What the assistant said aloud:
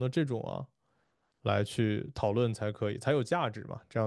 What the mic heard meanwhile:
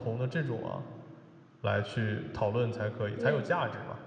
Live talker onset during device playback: 3.1 s

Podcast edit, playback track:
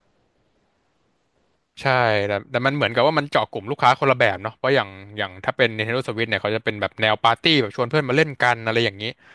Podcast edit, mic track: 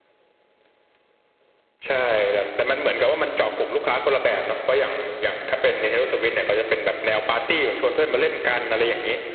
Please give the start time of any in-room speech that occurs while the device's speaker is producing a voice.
none

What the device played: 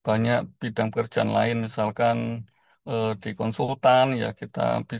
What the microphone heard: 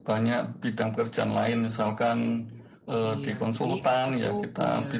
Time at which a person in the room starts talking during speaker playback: 3.1 s

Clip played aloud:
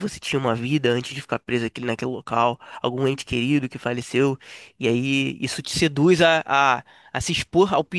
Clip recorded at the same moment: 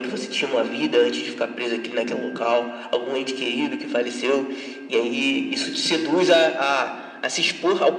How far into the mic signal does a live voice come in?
none

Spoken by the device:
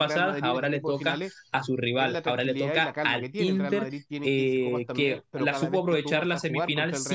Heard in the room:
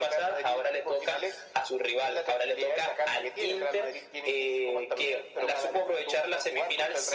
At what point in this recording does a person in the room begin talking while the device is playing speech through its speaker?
none

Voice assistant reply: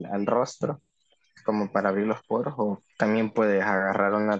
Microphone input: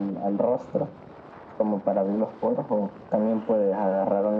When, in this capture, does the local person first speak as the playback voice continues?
none

